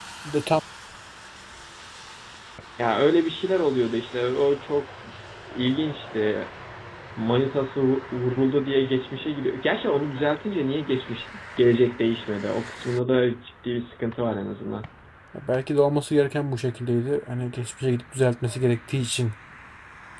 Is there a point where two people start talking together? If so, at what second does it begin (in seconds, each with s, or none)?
none